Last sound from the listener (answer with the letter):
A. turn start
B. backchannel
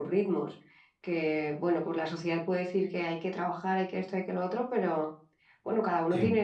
B